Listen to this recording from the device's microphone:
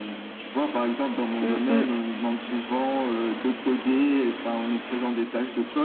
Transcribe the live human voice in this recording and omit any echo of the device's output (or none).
Mm, mm.